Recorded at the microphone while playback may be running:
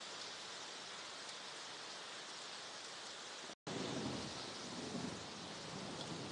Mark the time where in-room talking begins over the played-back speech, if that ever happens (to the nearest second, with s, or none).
none